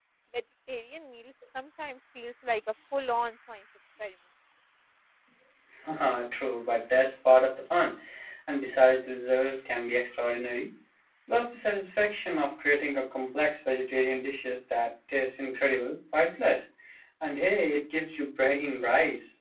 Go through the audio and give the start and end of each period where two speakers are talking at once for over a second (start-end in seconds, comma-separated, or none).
none